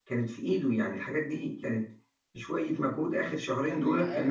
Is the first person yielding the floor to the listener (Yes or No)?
Yes